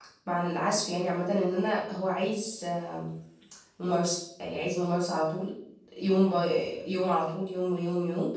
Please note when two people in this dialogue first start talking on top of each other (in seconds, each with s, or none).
none